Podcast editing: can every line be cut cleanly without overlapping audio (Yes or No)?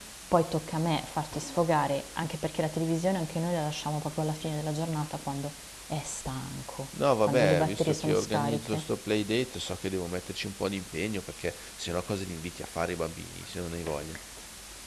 No